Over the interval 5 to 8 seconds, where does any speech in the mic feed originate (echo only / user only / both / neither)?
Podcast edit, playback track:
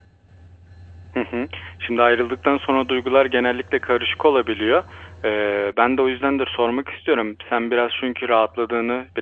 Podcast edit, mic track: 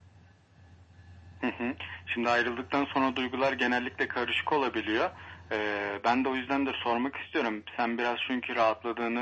echo only